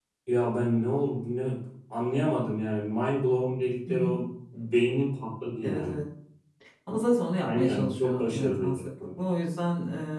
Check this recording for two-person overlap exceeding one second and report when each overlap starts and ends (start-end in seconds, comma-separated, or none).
7.4-8.9